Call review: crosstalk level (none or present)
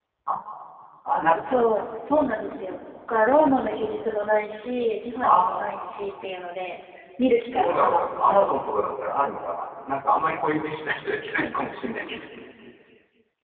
present